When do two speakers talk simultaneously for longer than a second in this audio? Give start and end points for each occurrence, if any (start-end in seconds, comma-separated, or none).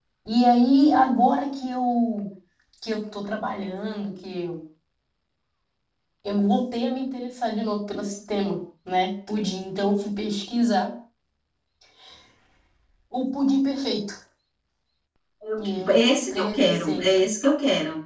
15.6-17.3